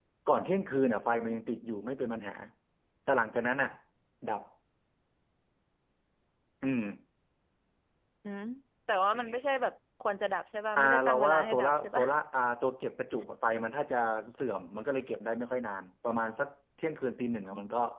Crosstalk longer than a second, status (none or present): present